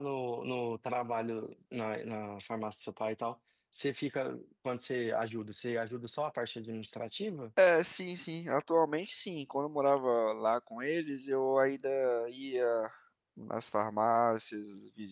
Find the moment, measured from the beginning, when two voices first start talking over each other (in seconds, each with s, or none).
none